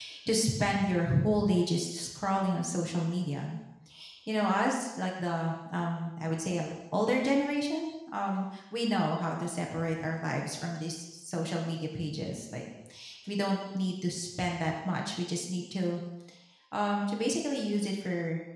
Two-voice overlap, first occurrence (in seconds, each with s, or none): none